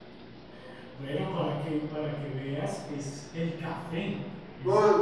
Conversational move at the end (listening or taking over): taking over